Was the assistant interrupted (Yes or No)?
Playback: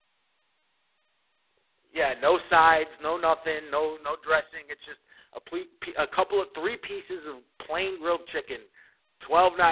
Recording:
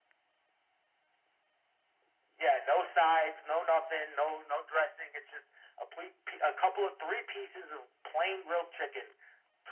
No